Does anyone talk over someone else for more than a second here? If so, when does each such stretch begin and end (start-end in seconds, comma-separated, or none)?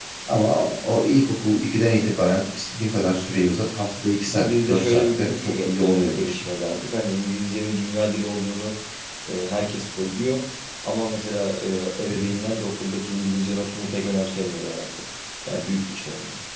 4.3-6.4